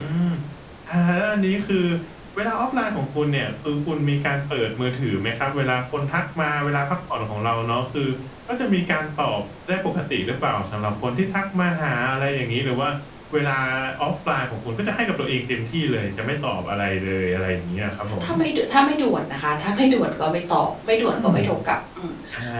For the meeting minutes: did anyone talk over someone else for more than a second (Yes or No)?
No